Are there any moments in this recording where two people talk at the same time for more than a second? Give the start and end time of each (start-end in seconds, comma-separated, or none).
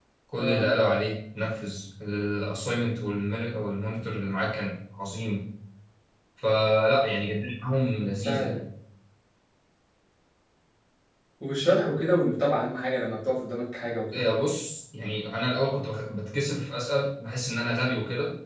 none